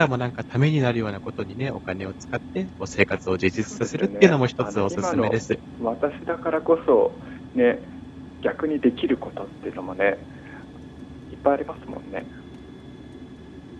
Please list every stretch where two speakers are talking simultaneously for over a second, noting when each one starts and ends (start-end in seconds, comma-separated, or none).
3.6-5.4